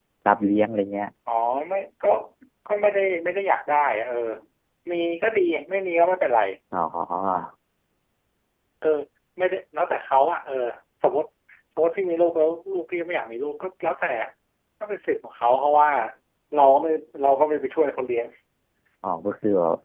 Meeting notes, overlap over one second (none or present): none